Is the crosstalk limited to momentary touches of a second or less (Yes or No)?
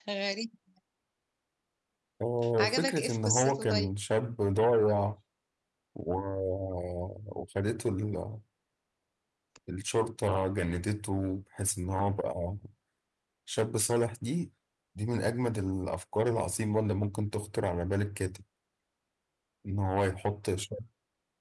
No